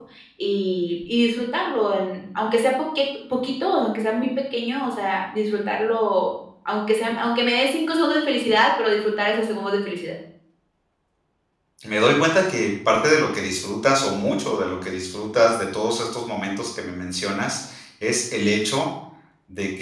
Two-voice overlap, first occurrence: none

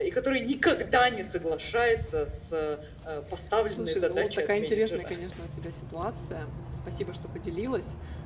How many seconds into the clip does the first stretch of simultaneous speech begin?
3.7 s

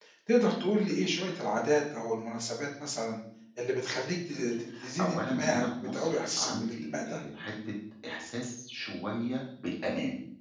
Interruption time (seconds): 5.0 s

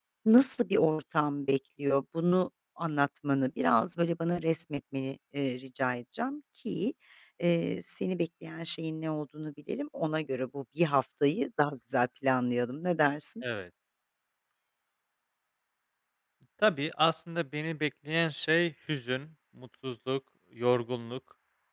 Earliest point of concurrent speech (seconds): none

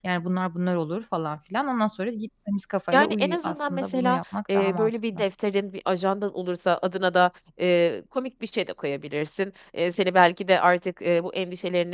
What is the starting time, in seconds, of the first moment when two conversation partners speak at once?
2.9 s

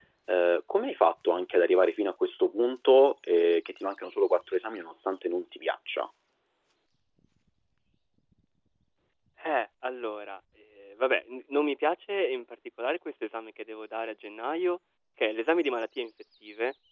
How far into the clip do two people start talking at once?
none

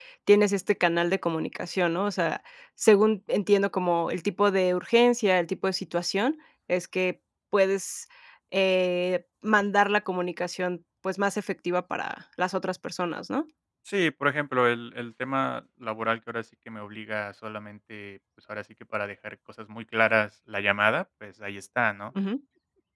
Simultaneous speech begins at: none

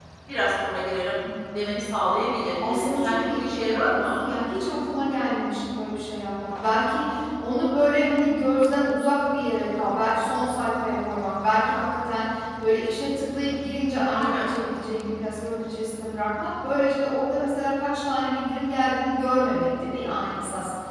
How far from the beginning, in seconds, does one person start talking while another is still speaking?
2.6 s

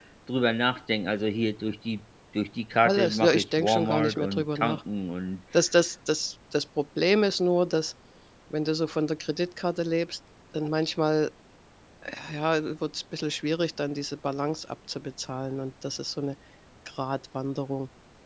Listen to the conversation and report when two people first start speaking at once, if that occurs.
2.8 s

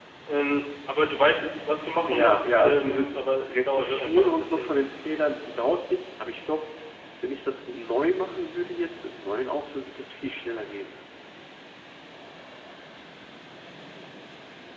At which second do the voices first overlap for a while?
2.1 s

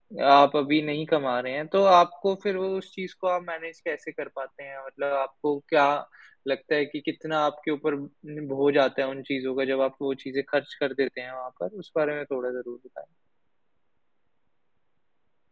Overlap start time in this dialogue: none

